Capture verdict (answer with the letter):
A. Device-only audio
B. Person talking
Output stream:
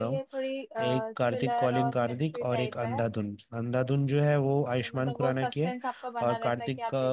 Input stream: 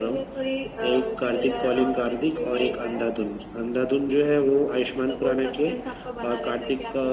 A